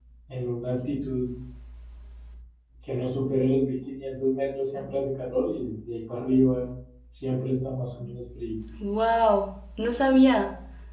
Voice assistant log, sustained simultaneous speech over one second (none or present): none